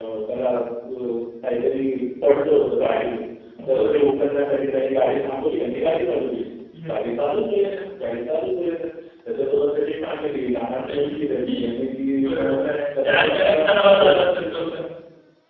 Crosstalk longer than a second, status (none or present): present